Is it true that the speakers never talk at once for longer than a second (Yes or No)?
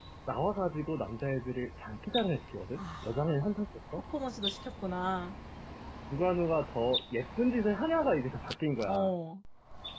Yes